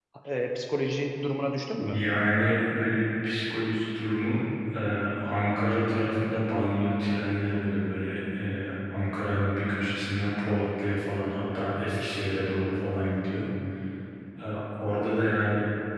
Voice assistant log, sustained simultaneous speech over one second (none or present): none